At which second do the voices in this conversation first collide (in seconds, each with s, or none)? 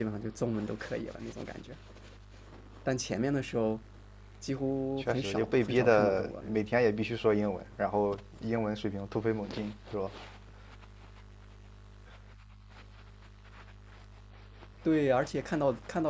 5.0 s